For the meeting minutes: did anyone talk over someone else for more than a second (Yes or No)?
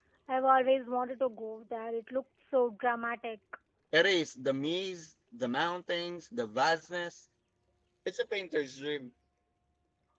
No